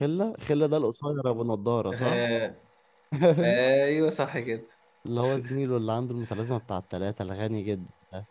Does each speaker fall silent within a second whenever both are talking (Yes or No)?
Yes